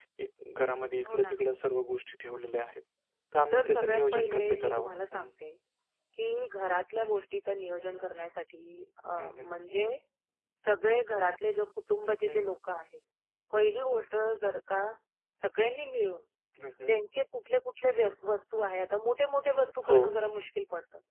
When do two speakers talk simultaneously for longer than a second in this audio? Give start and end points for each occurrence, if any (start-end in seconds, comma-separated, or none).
3.5-4.9